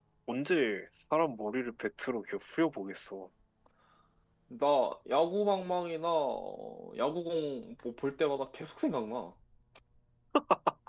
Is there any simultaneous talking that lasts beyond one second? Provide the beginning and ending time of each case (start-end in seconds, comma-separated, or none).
none